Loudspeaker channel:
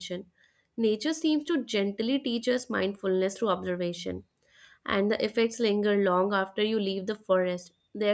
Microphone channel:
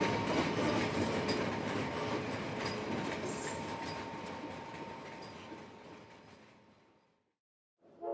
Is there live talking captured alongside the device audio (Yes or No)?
No